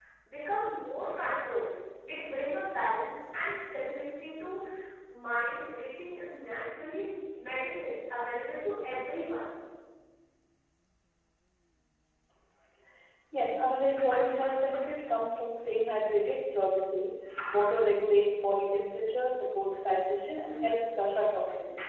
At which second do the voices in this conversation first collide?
none

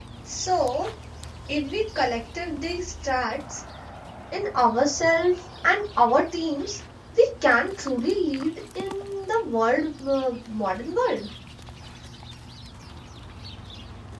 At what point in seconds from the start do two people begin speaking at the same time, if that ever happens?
none

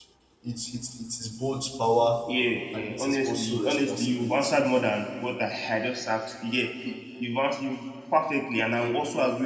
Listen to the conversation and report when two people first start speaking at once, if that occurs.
2.7 s

